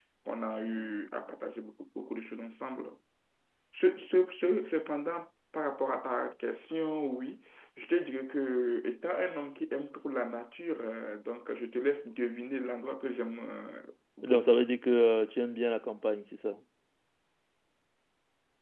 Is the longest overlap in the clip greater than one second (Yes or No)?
No